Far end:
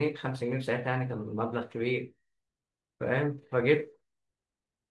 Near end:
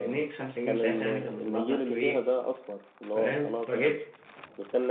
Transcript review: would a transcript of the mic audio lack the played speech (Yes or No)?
No